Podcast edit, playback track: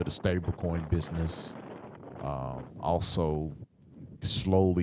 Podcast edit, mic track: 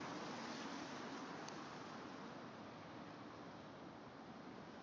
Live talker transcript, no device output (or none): none